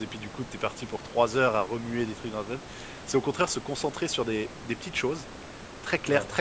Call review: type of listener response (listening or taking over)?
listening